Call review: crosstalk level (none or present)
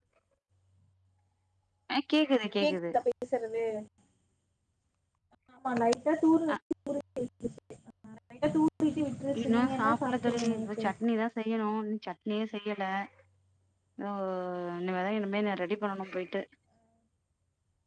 present